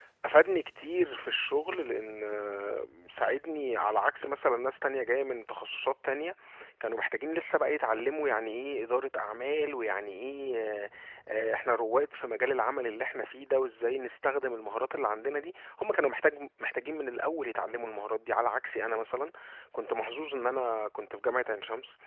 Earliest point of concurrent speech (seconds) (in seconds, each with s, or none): none